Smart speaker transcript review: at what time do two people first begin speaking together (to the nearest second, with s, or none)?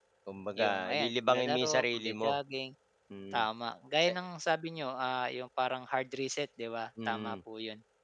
1 s